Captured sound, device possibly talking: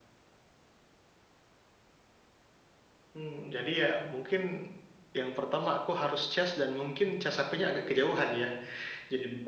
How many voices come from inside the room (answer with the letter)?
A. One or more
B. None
B